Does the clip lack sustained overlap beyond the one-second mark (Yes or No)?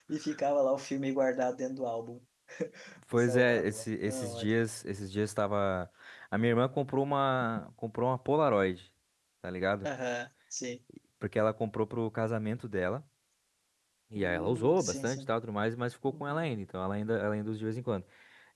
No